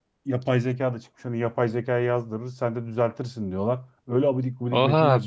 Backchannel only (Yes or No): No